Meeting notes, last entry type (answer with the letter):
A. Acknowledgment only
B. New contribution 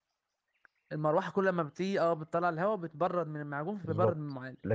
B